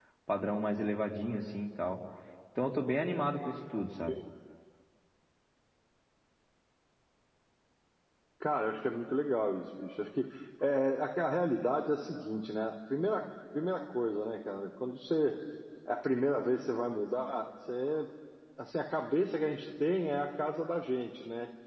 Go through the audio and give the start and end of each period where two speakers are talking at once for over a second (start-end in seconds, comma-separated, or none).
none